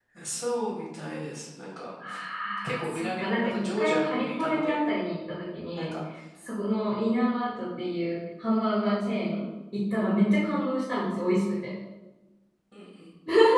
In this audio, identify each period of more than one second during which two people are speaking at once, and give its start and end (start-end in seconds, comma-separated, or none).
2.8-4.9